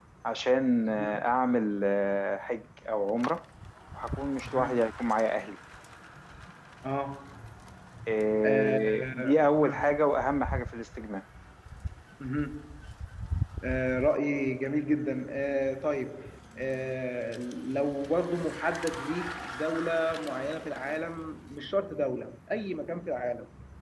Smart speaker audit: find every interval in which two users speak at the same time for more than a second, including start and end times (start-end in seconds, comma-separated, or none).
8.4-9.9